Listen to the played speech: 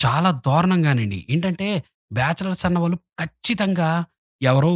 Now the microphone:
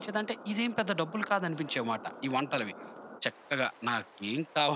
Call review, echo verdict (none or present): none